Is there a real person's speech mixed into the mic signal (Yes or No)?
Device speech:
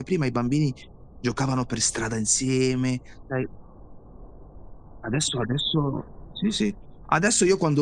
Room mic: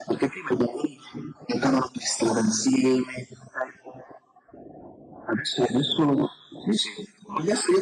No